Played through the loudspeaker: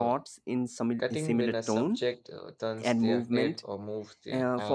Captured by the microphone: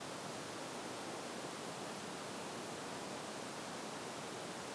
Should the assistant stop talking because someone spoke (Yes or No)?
No